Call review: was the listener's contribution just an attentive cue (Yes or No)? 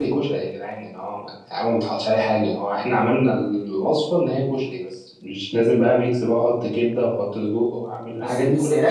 No